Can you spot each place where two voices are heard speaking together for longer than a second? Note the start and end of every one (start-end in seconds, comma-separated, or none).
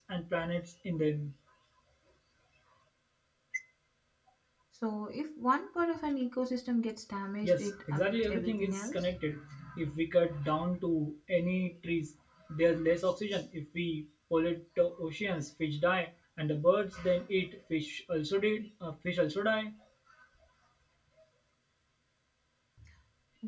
7.4-9.1